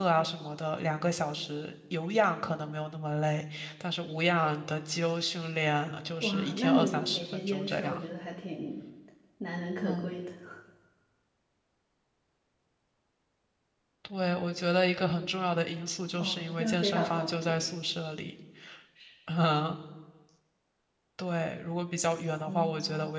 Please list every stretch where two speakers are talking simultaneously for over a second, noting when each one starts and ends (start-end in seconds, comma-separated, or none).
6.2-8.0, 16.2-17.6